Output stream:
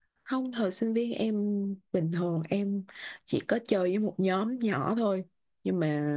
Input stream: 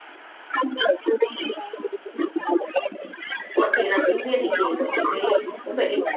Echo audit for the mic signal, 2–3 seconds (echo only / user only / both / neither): echo only